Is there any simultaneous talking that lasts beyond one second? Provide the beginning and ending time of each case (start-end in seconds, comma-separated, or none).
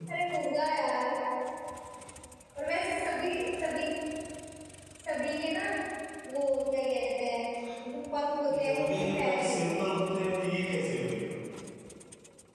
8.5-9.9